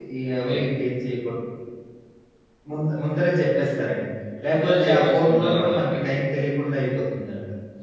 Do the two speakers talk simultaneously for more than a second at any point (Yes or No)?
Yes